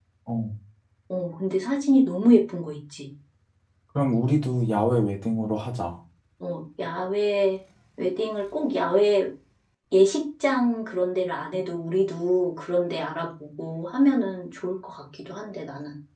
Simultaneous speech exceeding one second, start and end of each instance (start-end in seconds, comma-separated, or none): none